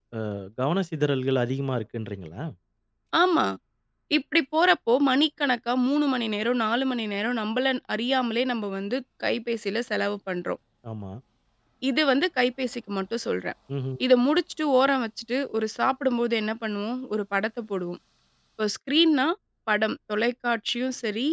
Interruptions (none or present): none